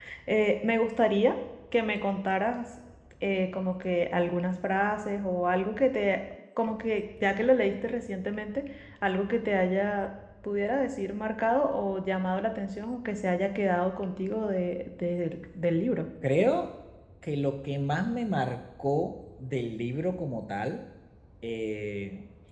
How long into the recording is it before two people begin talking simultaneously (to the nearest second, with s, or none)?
none